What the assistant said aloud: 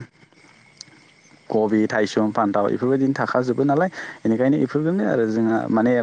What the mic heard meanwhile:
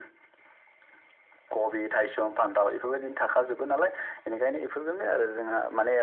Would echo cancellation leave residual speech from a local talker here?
No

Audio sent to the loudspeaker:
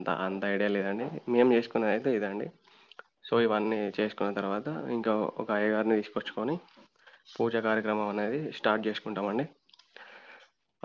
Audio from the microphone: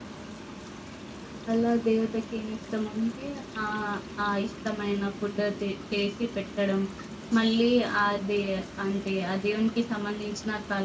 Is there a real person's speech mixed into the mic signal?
Yes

